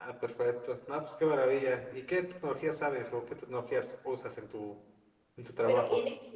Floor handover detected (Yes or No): Yes